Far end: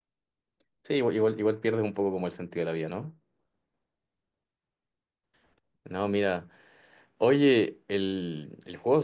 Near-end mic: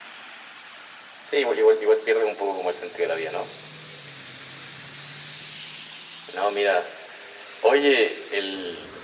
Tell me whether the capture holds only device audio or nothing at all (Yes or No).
Yes